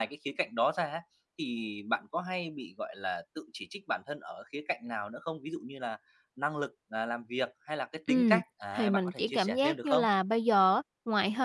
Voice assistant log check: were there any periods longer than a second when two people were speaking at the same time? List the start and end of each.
8.8-10.1

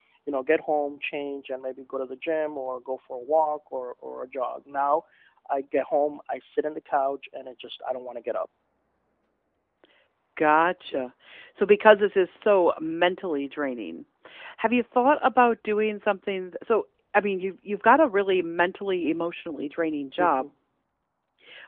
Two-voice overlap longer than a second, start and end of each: none

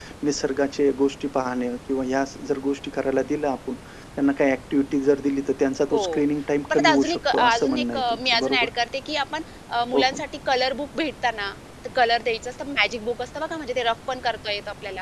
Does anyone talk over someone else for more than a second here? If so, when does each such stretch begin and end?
6.7-8.7

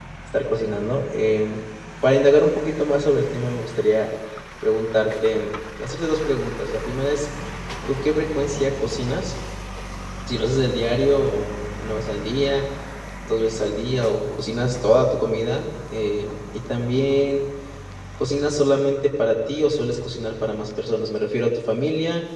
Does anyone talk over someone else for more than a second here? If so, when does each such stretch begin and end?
none

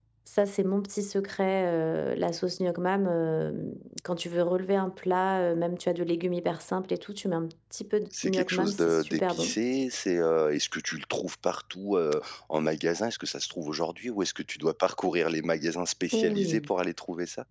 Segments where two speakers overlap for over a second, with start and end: 8.2-9.6

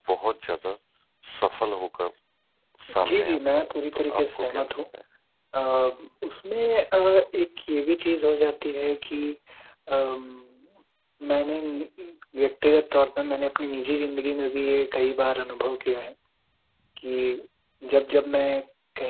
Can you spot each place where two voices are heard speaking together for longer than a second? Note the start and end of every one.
3.1-4.7

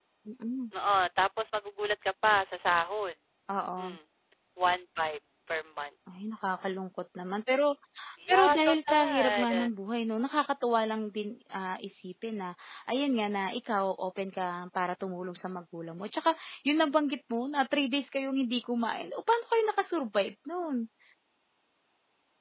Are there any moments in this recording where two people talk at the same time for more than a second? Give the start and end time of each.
8.3-9.7

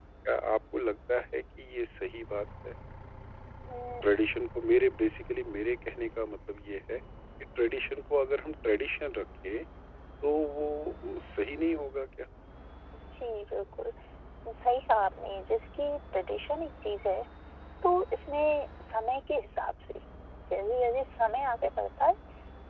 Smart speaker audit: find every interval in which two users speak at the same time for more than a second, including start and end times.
none

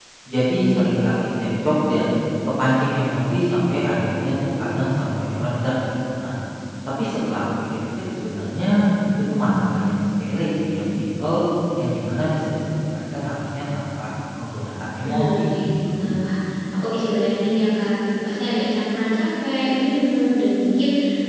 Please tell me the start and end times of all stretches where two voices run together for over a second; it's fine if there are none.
15.0-16.2

